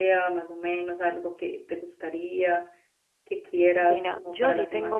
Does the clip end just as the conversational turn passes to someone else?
Yes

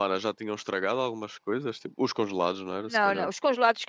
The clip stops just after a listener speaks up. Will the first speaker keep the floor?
No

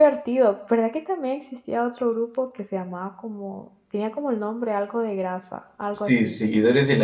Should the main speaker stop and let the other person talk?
Yes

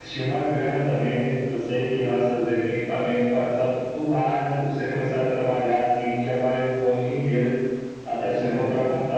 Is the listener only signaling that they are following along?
Yes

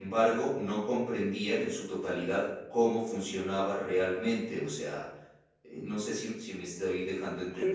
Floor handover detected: Yes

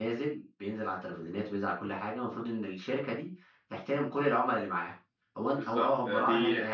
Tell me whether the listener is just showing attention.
No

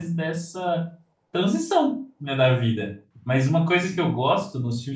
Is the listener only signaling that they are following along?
Yes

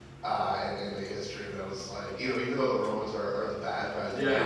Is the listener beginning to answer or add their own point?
Yes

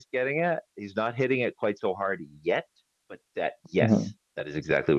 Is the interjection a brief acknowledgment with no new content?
Yes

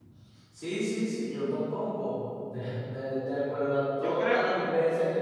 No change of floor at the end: Yes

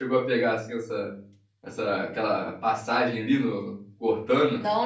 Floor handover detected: Yes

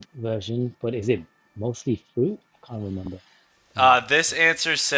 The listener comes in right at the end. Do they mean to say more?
Yes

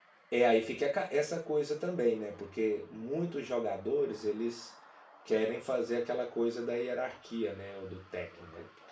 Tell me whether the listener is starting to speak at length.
No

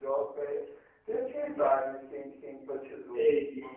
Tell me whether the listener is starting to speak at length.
Yes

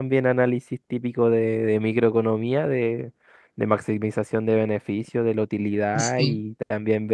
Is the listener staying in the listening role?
Yes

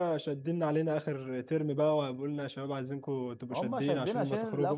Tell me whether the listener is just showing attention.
No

